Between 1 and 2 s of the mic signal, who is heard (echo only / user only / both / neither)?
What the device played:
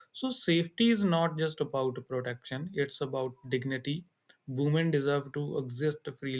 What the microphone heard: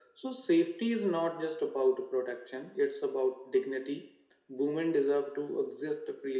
echo only